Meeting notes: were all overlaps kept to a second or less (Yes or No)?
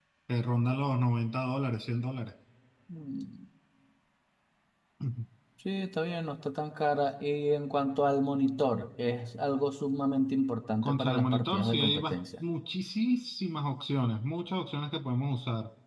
No